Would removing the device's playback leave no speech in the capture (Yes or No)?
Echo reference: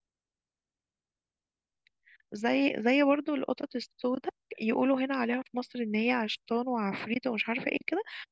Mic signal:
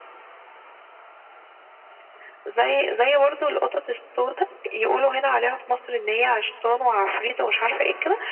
Yes